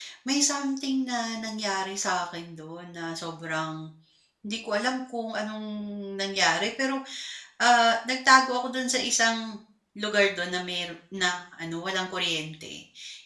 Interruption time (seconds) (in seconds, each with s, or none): none